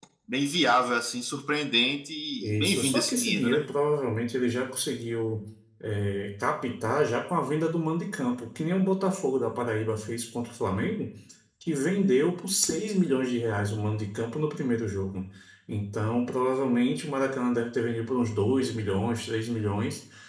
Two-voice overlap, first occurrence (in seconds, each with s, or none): 2.4 s